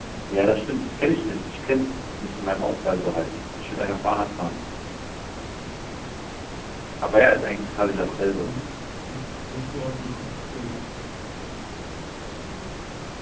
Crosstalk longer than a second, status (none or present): present